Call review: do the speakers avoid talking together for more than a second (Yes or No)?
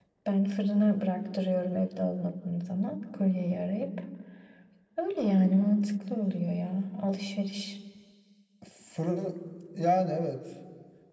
Yes